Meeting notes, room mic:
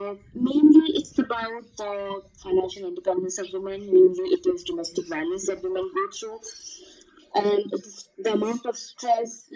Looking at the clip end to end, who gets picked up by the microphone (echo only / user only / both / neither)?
echo only